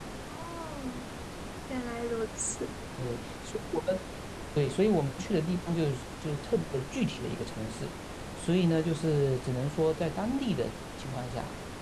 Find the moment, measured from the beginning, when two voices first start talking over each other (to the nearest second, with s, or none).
none